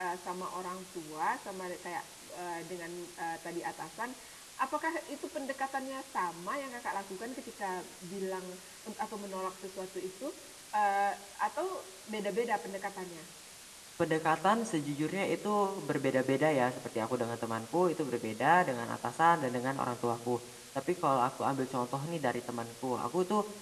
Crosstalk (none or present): none